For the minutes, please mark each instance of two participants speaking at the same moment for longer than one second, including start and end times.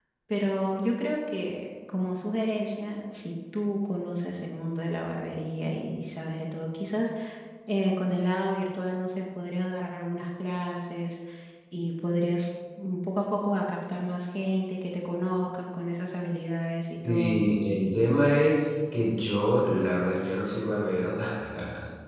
none

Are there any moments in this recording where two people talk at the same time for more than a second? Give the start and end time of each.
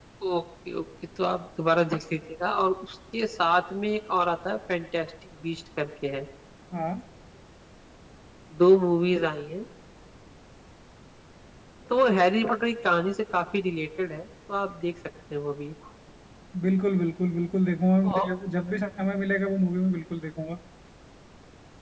none

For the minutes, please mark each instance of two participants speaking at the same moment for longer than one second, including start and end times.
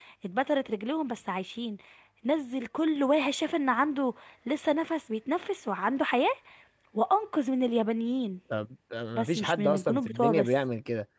9.2-10.5

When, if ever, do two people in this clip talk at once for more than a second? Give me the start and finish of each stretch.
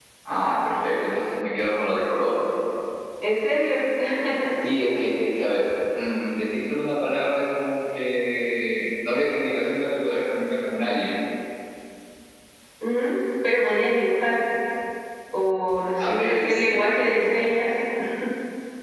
16.0-17.5

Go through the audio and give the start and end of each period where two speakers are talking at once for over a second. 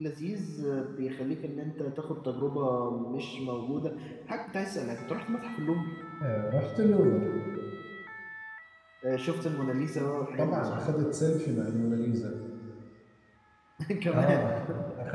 none

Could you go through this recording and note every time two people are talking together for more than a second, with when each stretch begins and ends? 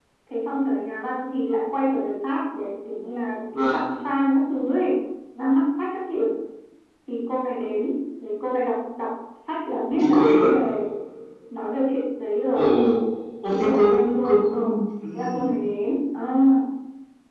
13.5-14.7

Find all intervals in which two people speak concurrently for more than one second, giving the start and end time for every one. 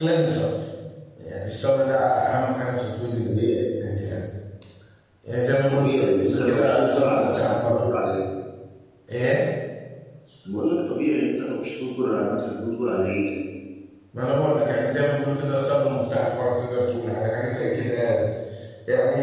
5.7-7.9

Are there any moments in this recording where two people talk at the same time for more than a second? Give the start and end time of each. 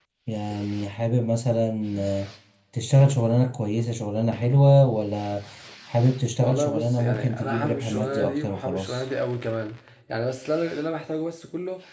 6.4-9.0

